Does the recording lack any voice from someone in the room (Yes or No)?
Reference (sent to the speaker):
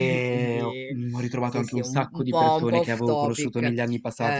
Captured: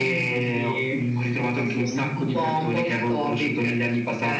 Yes